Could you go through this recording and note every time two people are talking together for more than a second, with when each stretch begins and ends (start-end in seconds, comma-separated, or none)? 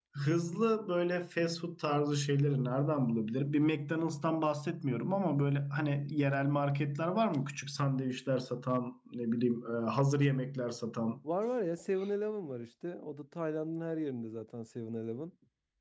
none